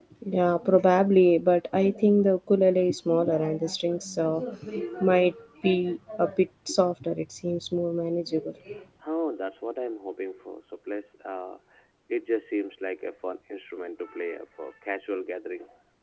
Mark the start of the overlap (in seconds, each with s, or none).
none